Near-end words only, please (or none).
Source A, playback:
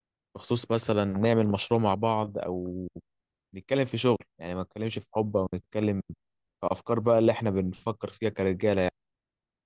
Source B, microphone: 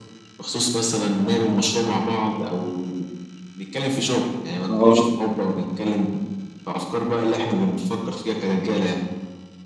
اه